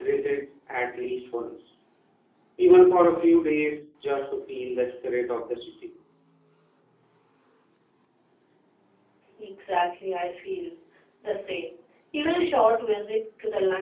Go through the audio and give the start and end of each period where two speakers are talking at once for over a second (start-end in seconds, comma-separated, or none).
none